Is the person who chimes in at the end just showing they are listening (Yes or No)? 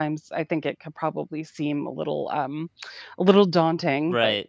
No